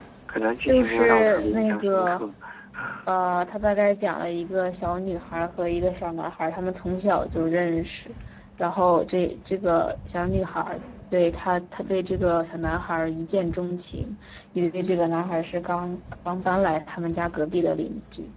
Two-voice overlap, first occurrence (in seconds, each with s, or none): 0.7 s